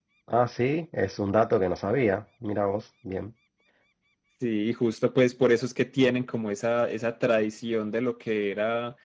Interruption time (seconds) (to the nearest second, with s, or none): none